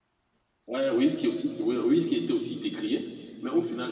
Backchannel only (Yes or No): Yes